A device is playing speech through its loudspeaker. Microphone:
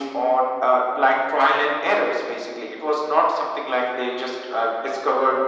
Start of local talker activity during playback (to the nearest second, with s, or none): none